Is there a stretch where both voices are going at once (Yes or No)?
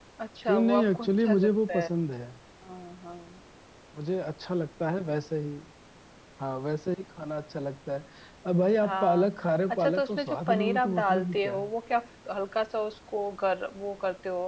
Yes